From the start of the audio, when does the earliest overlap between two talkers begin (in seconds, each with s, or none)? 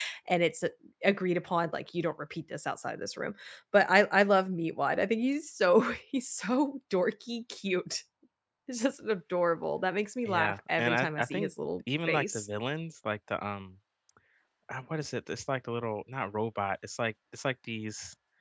10.2 s